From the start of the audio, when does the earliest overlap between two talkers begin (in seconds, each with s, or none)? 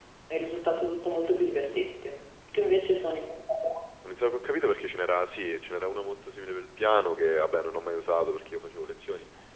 none